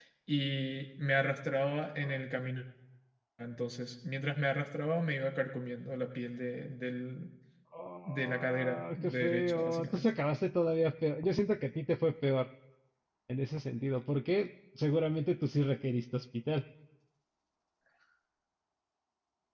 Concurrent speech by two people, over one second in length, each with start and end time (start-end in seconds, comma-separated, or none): 8.1-10.1